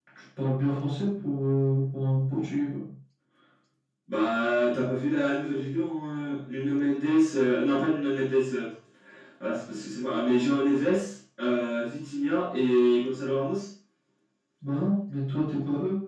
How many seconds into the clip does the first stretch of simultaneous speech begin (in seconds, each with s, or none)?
none